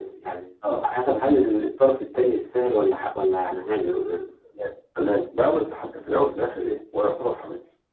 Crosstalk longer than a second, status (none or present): none